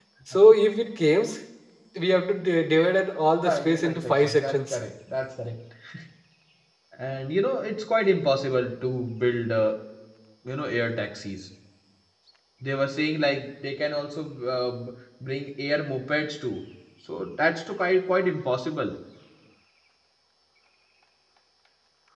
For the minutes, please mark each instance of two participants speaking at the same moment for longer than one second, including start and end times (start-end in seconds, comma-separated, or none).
3.4-4.8